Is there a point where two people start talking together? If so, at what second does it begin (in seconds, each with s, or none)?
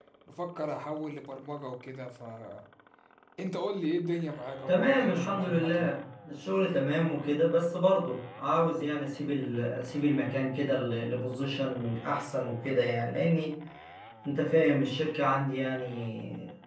4.7 s